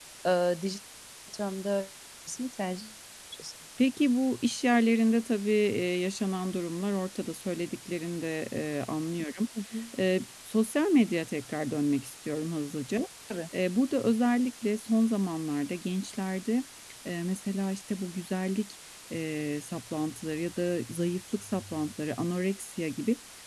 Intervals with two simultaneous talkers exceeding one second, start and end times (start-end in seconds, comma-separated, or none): none